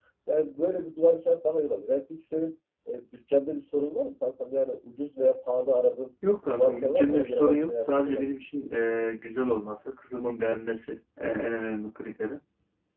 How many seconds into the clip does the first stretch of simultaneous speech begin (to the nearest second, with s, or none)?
6 s